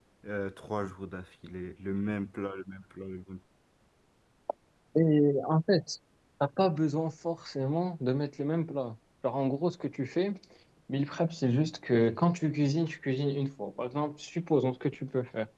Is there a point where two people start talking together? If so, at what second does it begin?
none

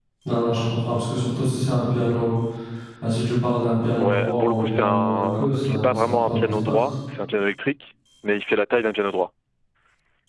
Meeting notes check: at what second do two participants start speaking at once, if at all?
4.0 s

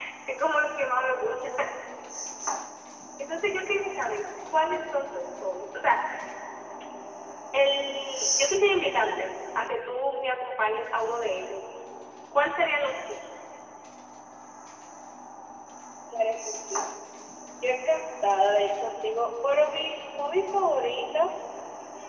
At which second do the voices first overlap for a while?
none

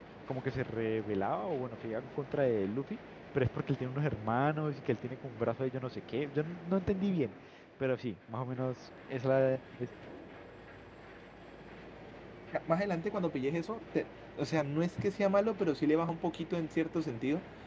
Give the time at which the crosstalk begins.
none

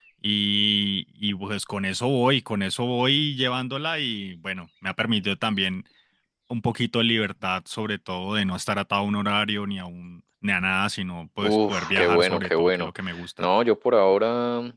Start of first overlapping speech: 11.4 s

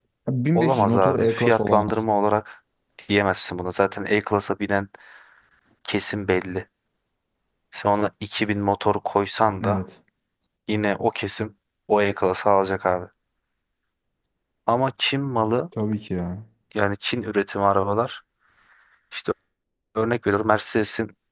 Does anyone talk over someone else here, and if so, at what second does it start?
0.6 s

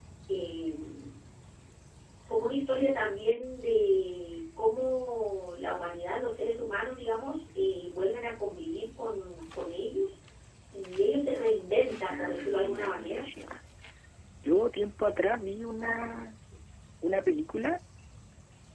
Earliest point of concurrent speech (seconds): 11.9 s

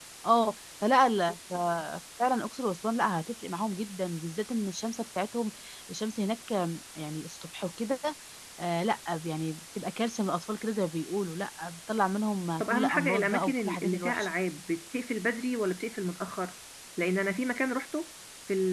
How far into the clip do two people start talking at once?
12.6 s

